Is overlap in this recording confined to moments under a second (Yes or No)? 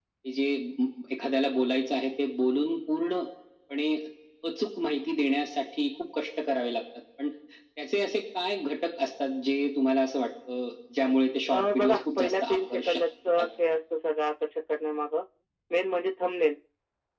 No